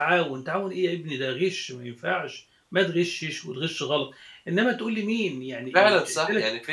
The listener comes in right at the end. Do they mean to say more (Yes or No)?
Yes